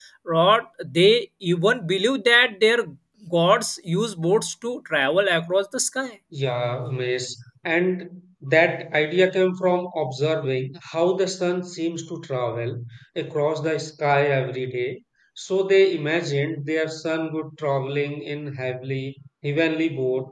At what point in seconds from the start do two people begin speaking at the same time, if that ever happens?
none

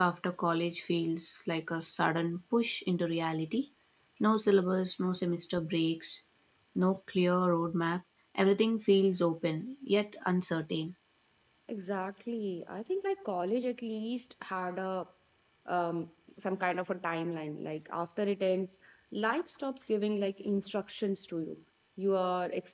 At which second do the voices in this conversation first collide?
none

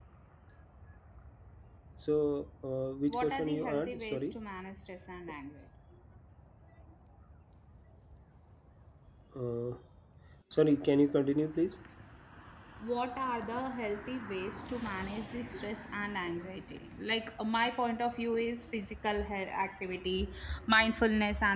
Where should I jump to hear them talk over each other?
3 s

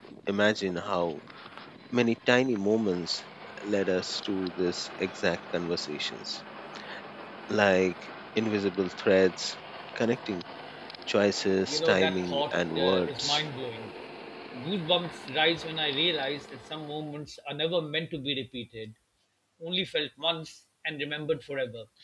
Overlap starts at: 12 s

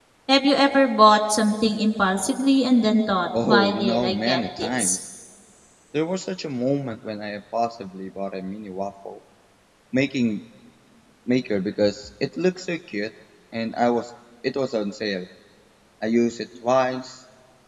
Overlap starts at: 3 s

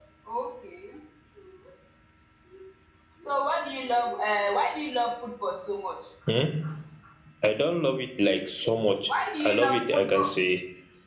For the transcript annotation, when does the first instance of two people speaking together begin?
9 s

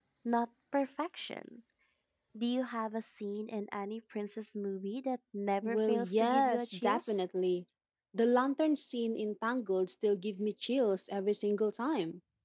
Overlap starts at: 6 s

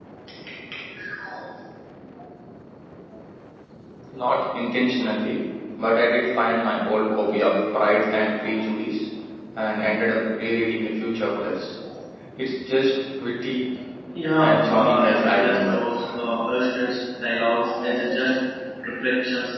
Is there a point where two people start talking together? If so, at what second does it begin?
14 s

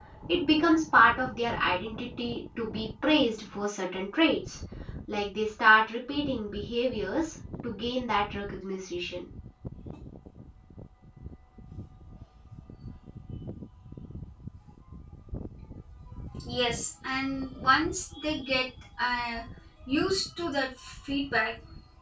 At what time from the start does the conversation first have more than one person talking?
none

